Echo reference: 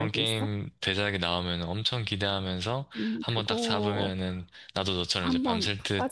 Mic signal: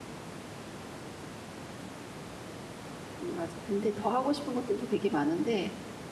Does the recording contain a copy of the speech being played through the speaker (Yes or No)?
No